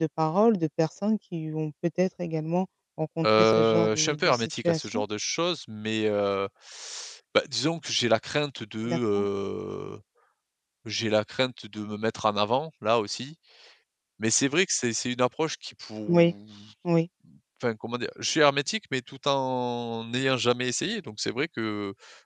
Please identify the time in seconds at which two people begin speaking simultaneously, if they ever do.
3.2 s

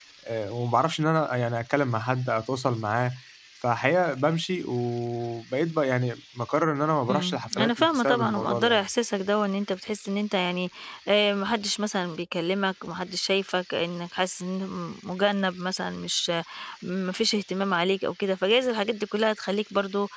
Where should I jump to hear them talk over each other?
7.1 s

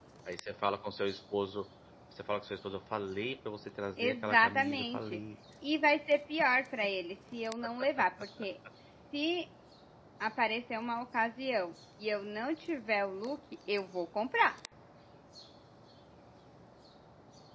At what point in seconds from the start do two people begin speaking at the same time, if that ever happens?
4.0 s

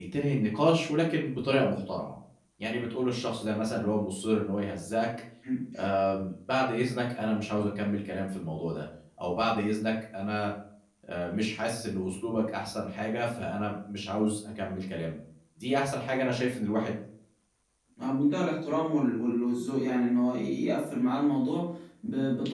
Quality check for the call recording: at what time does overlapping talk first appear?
none

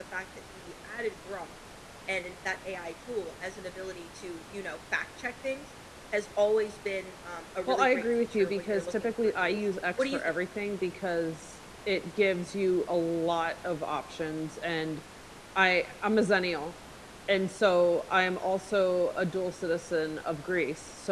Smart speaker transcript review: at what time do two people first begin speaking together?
7.7 s

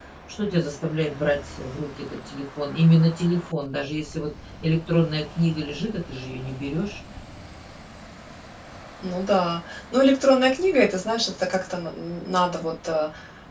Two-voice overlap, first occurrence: none

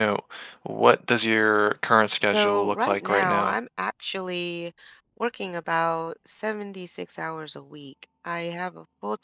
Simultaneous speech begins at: 2.1 s

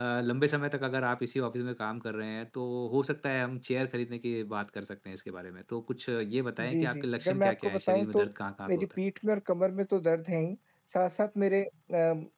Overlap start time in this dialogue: 6.6 s

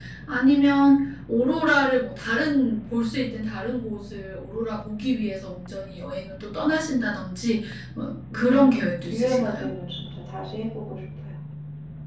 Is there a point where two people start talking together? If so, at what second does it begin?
8.3 s

